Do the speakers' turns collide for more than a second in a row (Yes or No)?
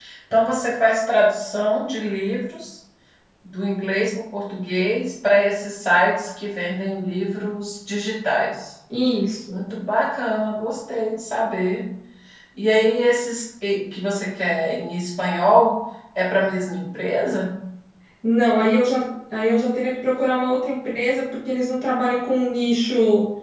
No